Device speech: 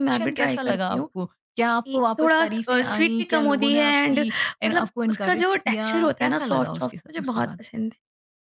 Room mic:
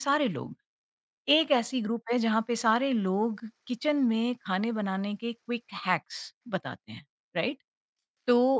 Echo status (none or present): none